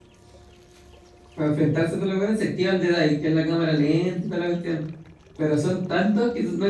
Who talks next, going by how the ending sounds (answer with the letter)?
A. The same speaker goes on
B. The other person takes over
A